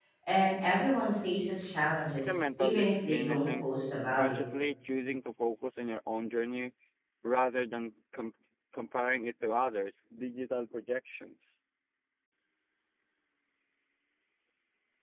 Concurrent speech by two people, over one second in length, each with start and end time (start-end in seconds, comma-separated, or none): 2.2-3.6